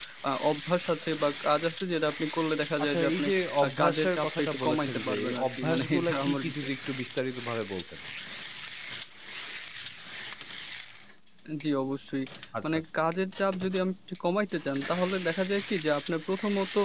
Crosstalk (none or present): present